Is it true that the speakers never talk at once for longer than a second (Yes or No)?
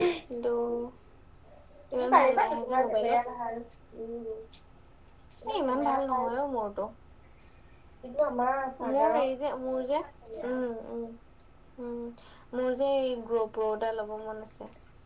No